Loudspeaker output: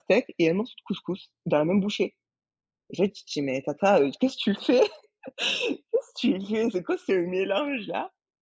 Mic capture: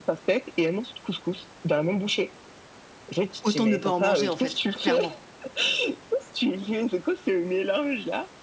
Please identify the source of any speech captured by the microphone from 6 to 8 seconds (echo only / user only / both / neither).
echo only